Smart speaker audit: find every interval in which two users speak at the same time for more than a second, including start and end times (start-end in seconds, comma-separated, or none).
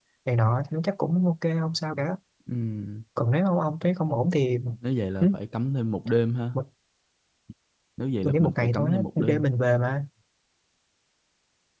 8.2-9.4